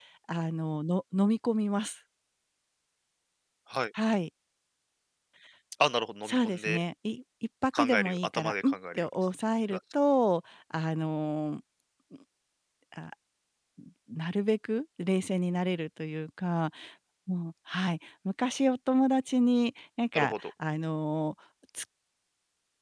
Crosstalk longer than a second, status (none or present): present